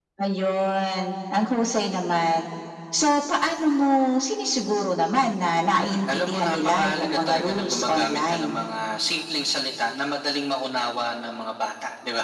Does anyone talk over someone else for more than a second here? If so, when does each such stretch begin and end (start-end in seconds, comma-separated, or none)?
5.8-8.5